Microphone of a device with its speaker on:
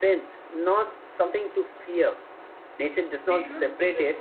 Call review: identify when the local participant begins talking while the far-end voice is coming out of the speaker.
3 s

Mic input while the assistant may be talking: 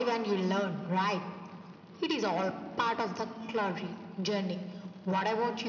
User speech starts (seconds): none

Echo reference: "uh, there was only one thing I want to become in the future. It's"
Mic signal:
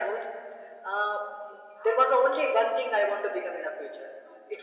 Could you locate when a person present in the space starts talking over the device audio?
none

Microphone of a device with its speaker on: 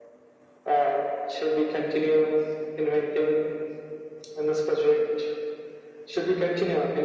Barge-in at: none

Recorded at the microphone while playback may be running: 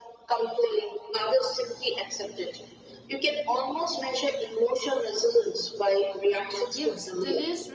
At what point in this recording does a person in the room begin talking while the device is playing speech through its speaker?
7 s

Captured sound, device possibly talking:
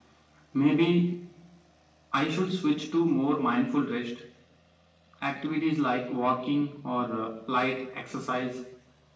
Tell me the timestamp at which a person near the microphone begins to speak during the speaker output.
none

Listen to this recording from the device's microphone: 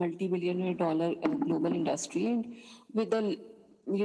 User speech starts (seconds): none

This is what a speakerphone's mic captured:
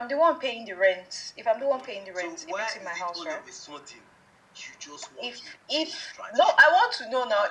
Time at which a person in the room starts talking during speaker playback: none

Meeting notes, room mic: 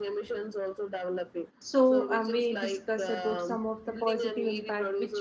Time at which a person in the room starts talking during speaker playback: 2 s

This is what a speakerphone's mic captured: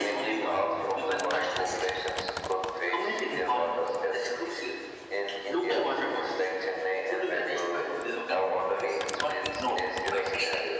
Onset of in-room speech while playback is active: none

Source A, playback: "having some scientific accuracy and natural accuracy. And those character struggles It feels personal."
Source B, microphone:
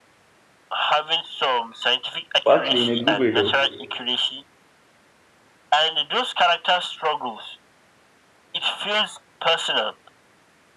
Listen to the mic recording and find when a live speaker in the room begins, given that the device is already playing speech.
2 s

